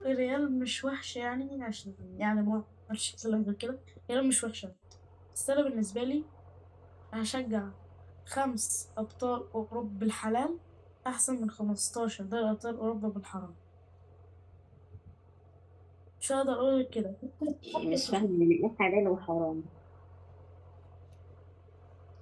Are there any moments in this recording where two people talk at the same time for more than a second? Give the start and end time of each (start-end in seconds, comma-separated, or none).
none